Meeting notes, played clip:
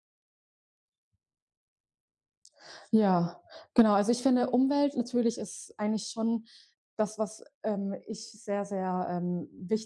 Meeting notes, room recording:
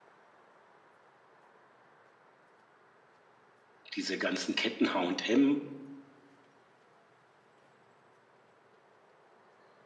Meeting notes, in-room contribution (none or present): present